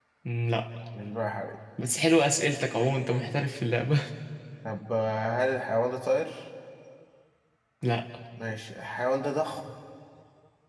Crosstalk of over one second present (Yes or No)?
No